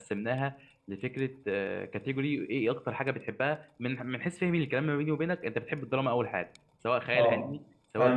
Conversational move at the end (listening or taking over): taking over